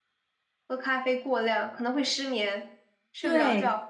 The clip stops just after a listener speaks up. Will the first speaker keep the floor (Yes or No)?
No